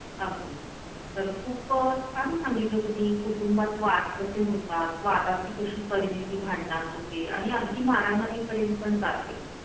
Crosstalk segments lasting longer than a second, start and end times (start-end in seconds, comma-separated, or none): none